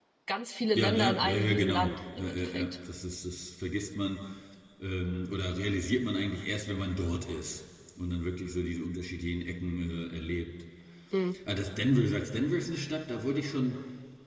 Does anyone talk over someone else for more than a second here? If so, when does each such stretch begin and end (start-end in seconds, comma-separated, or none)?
0.8-2.8